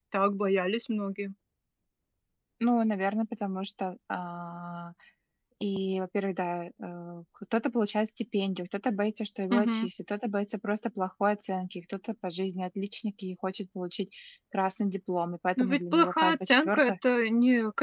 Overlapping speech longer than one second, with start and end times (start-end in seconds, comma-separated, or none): 15.6-16.9